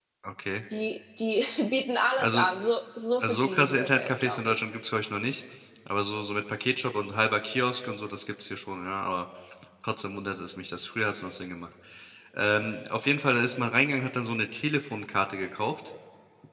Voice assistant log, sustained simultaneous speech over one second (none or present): present